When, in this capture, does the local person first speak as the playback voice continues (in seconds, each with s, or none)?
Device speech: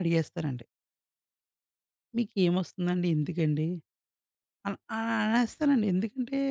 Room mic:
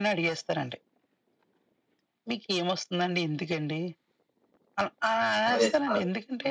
5.5 s